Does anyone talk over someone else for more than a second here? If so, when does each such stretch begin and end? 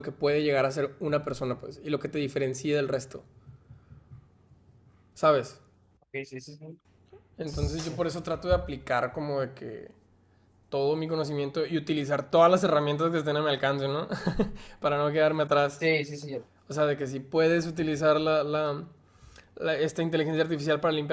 none

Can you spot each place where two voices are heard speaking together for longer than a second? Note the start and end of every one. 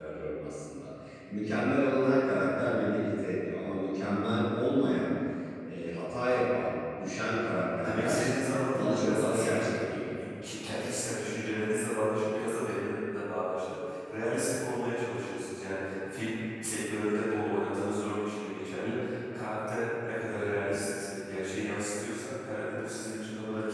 8.7-10.0

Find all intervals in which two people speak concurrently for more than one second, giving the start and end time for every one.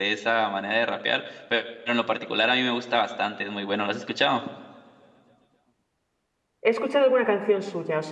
none

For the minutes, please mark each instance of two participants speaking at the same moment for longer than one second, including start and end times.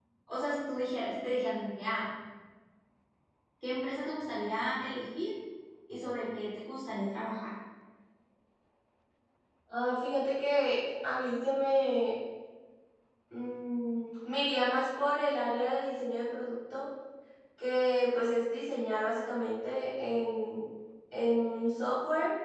none

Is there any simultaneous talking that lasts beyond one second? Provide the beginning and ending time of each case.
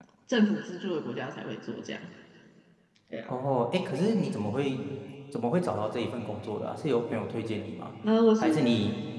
none

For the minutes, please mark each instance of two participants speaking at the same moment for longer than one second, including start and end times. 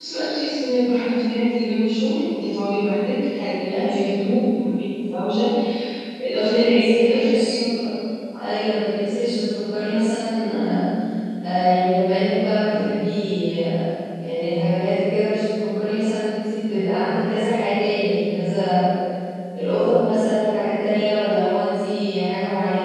6.3-7.5

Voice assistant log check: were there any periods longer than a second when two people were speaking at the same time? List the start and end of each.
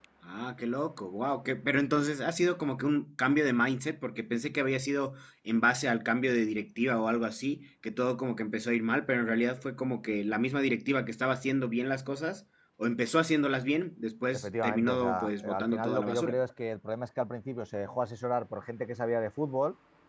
14.3-16.4

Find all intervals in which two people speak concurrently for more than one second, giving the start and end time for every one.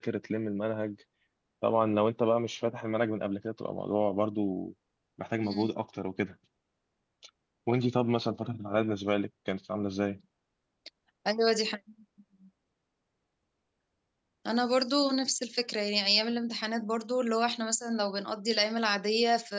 none

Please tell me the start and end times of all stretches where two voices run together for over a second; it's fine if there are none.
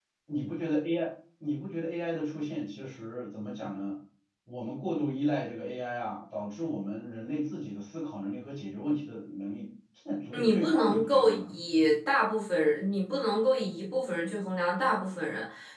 10.3-11.5

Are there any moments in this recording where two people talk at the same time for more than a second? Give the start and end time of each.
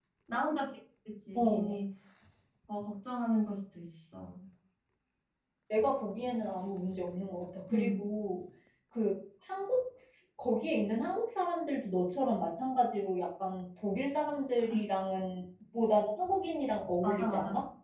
none

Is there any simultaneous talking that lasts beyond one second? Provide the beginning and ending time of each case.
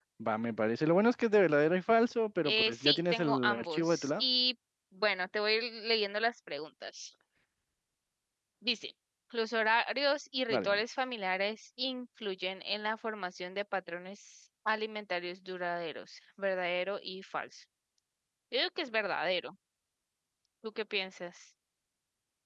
2.4-4.2

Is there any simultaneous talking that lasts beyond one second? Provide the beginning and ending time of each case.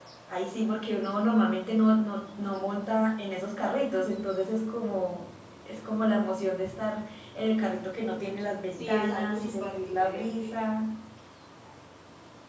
8.7-10.6

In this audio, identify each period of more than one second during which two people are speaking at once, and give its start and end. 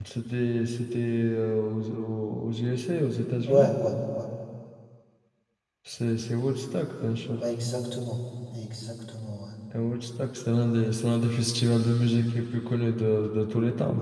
none

